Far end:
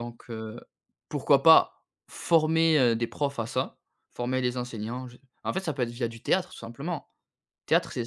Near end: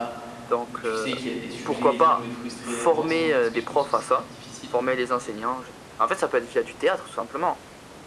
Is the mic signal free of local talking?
No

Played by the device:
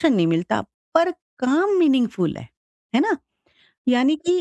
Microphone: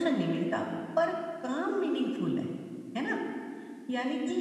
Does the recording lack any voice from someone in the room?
Yes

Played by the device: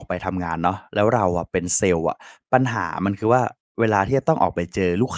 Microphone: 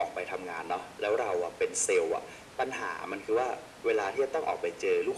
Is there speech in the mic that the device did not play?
No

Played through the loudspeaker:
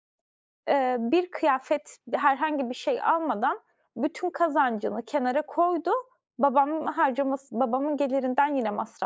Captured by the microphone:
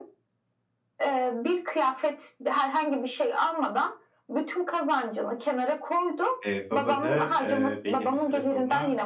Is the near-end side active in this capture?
Yes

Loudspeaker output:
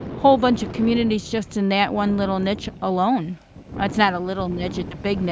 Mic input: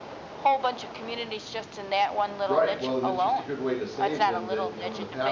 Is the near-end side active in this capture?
Yes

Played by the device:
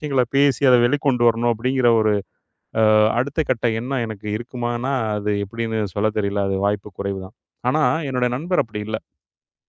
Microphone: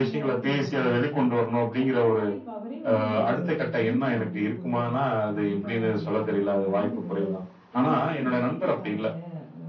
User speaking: Yes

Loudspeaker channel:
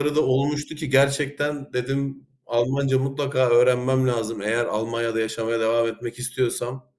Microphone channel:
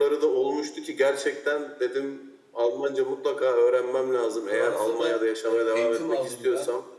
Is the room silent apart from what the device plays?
No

